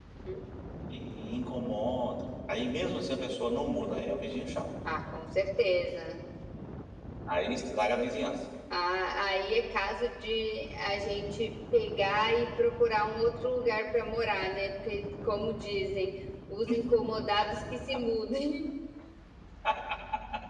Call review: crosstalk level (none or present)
none